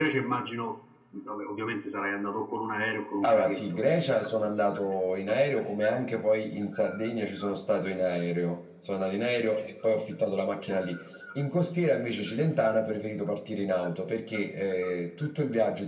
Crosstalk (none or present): present